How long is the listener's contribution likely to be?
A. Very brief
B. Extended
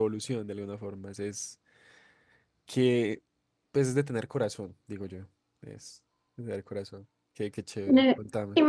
B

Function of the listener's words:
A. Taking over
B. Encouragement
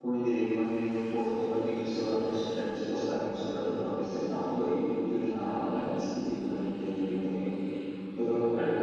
A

